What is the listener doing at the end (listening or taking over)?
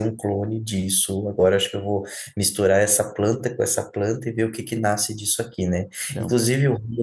listening